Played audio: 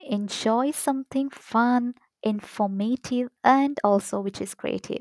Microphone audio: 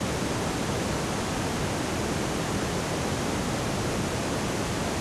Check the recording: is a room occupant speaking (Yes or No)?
No